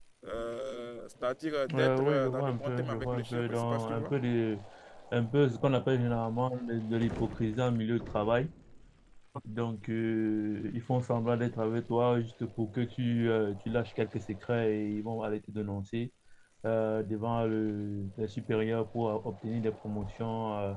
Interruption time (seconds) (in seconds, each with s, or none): 1.7 s